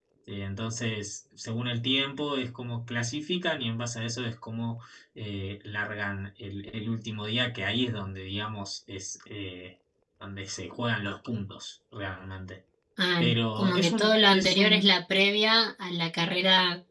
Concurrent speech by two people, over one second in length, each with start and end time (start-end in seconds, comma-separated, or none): 13.2-14.9